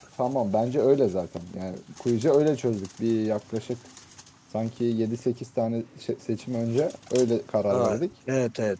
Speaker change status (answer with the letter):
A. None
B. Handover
B